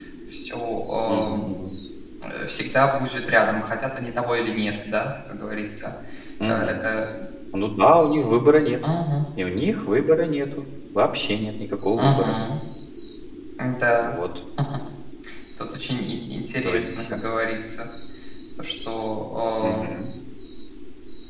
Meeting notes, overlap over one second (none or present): none